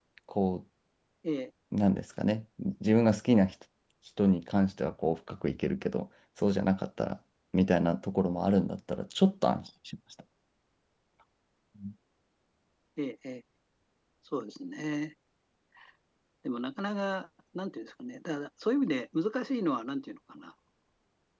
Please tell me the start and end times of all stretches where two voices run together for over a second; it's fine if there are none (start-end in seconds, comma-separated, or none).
none